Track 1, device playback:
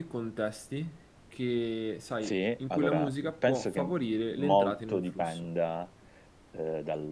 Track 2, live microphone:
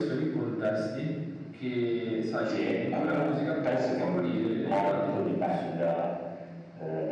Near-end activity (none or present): none